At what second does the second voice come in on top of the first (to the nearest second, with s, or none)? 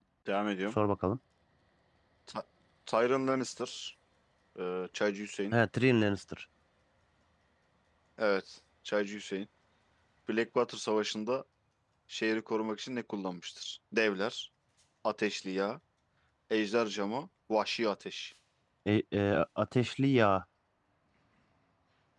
none